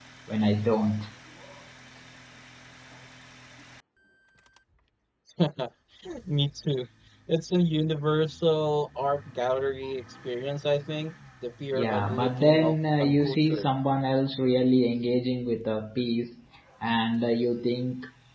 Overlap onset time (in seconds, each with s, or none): 11.7 s